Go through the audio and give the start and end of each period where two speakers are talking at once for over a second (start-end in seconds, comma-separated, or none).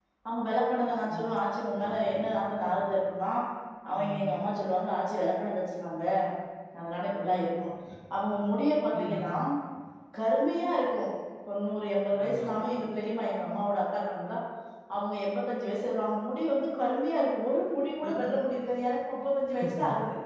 none